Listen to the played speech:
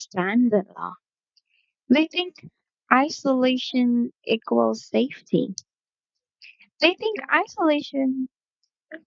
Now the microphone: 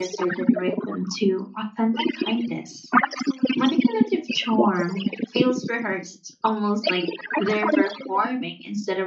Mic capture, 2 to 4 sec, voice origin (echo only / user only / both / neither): both